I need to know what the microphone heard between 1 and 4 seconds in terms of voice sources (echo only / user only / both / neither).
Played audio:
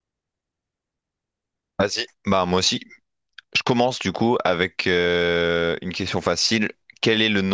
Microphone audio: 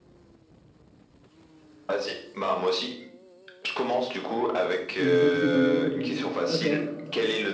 echo only